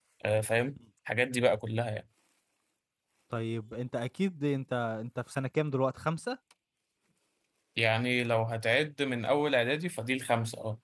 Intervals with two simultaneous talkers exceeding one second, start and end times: none

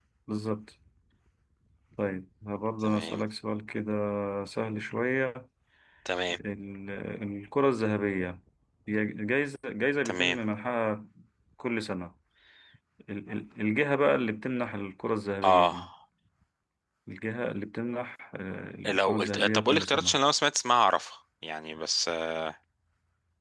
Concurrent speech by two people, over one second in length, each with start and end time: 18.8-20.2

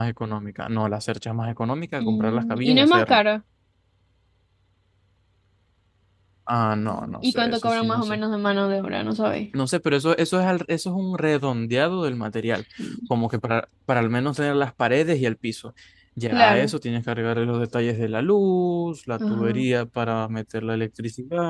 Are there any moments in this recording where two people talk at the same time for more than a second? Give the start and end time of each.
2.0-3.2, 6.9-8.2

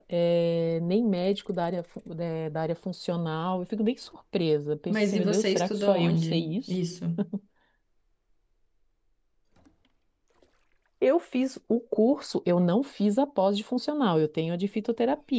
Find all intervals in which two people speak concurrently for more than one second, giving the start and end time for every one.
4.9-6.7

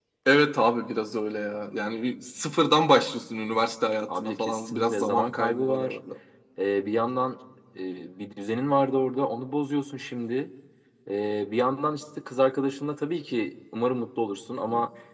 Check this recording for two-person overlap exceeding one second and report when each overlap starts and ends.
4.1-6.0

